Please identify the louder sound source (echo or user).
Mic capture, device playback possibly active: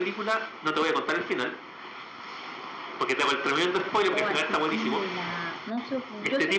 echo